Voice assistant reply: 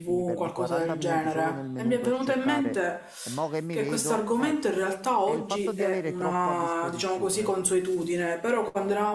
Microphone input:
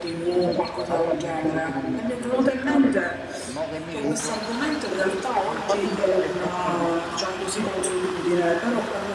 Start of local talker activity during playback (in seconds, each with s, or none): none